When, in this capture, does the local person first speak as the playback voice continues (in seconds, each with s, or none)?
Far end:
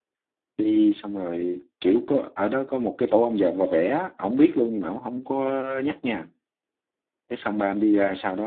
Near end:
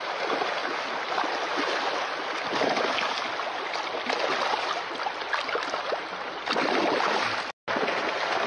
none